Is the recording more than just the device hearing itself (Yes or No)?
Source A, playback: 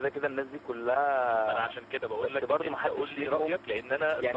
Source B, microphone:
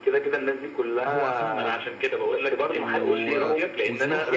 Yes